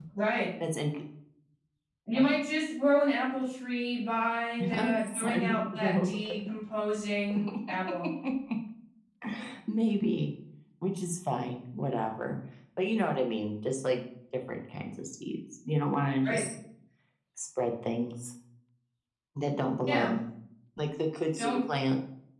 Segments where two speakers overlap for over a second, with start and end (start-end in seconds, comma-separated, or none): 4.8-6.1